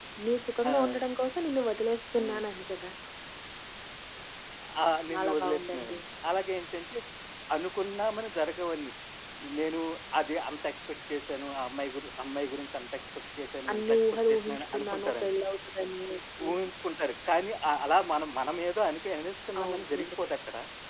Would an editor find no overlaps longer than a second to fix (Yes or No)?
No